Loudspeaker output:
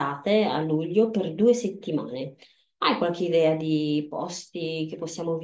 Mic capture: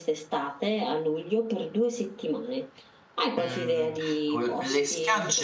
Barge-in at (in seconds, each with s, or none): 3.4 s